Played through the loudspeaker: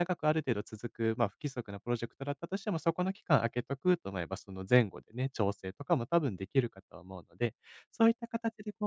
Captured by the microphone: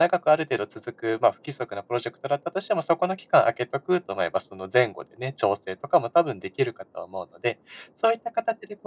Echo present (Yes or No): Yes